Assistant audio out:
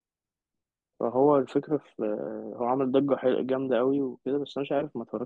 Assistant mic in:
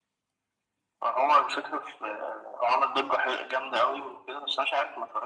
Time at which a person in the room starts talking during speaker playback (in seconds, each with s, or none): none